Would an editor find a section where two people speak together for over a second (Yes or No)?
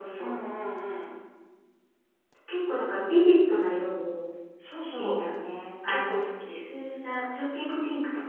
No